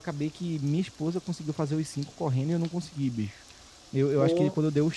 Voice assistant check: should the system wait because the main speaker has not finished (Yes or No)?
Yes